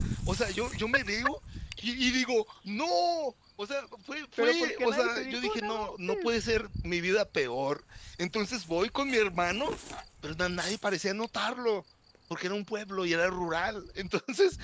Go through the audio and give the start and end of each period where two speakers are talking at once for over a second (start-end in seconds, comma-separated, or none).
4.4-6.3